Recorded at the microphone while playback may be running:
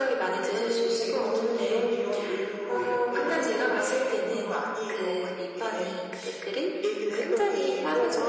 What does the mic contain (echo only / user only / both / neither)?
echo only